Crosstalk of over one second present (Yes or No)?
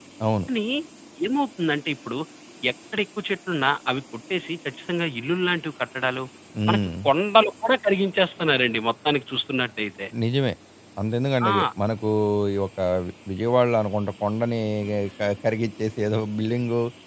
No